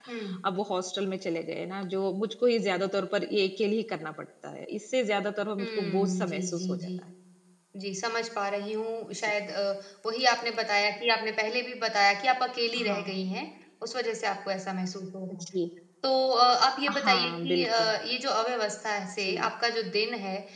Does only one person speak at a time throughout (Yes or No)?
No